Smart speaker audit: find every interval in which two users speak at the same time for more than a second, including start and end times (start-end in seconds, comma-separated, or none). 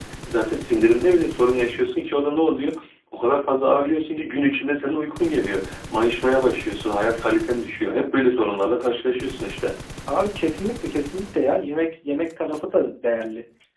none